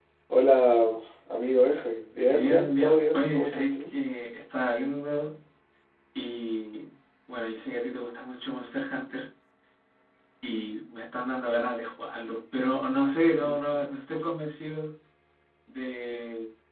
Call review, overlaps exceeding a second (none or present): present